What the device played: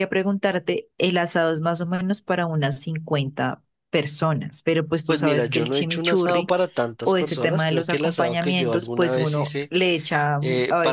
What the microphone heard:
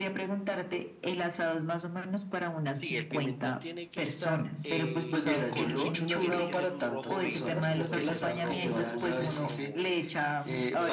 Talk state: both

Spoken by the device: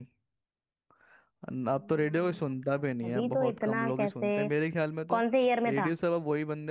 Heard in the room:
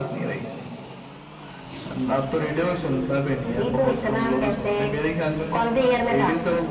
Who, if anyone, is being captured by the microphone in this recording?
echo only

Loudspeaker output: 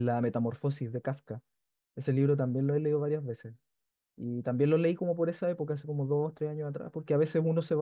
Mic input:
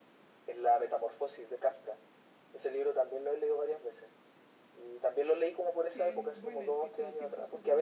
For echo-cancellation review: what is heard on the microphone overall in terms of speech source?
both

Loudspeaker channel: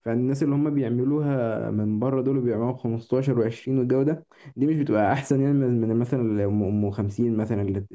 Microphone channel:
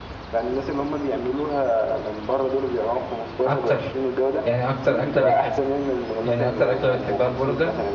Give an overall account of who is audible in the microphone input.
both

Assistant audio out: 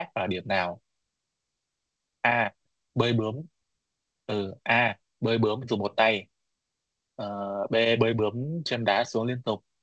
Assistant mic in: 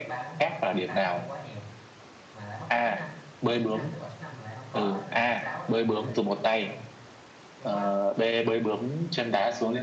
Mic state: both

